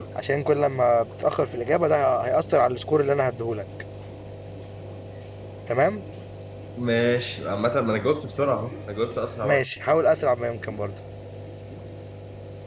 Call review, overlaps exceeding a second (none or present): none